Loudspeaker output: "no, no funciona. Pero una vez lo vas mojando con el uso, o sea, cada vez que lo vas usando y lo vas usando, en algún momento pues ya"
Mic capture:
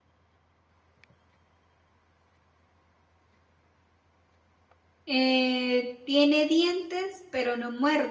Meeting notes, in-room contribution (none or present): present